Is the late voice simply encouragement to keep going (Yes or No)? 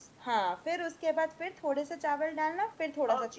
No